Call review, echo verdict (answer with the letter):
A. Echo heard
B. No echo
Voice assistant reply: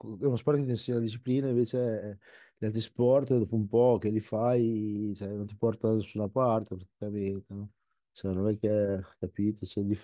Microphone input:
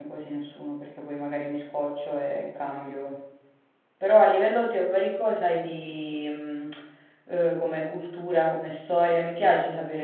B